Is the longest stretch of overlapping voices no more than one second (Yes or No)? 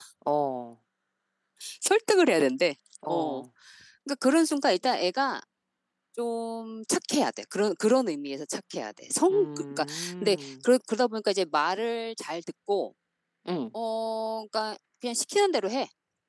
No